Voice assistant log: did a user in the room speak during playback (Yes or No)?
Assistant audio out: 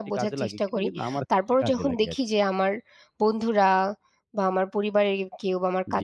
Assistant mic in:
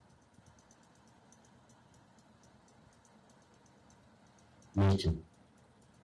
Yes